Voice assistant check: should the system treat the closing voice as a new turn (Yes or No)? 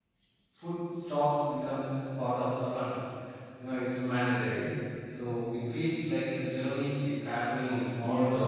Yes